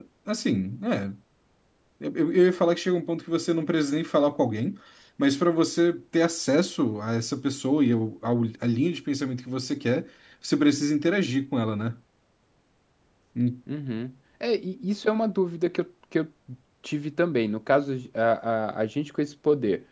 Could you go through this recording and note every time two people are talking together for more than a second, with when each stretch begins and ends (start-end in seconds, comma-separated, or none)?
none